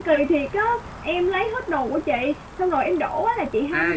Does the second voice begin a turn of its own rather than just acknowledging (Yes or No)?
Yes